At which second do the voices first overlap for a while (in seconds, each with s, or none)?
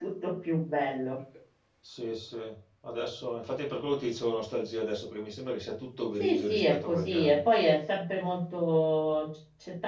6.2 s